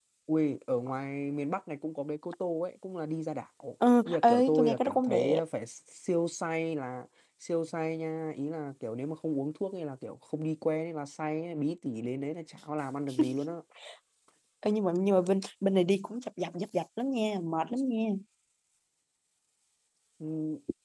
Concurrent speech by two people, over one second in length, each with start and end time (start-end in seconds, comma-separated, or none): 4.0-5.4